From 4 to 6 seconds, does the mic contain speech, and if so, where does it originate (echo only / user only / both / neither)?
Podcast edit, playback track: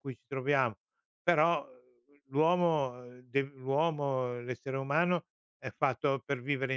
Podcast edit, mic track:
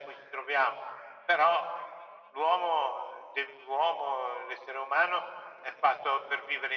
echo only